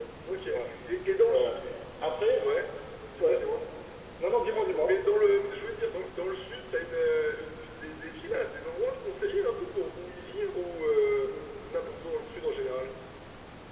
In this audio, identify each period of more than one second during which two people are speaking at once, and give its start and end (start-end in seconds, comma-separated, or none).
none